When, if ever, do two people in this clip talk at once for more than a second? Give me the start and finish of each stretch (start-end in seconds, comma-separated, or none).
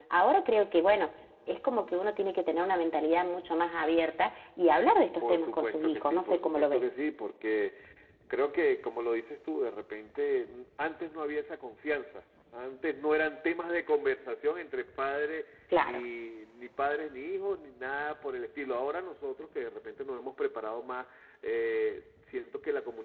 5.2-6.9